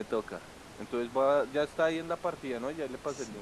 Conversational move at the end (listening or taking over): taking over